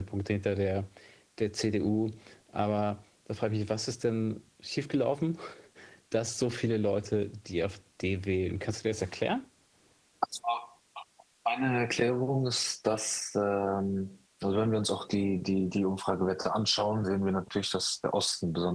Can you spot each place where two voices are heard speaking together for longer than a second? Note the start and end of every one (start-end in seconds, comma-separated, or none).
none